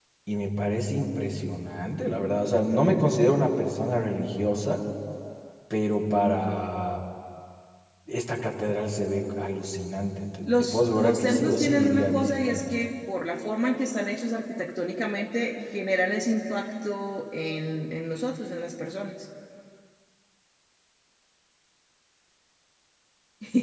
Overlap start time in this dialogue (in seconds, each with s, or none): 10.5 s